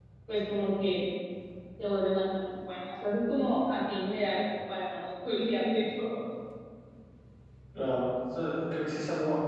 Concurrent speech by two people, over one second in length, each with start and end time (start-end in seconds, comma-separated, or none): none